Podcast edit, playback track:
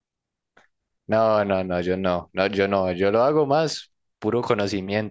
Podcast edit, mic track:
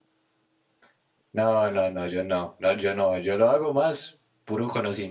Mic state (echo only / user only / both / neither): echo only